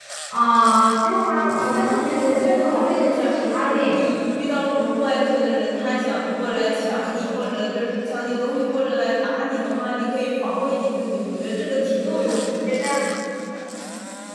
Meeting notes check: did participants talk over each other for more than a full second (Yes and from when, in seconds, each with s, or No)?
Yes, from 1.8 s